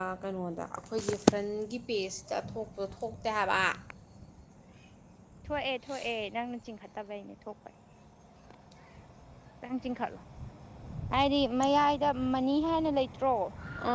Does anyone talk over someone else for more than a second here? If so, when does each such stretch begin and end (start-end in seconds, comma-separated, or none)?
none